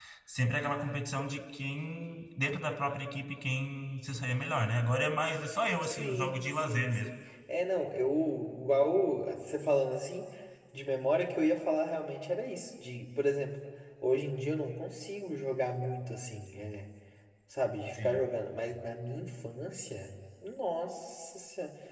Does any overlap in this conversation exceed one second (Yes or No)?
Yes